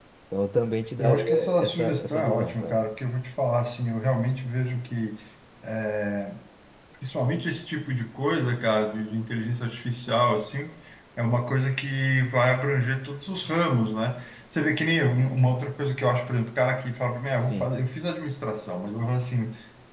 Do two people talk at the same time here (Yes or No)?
Yes